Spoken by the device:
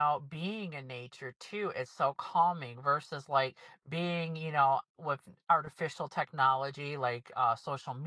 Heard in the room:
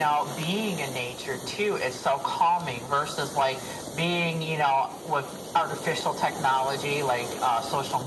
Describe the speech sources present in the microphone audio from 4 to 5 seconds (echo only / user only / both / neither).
echo only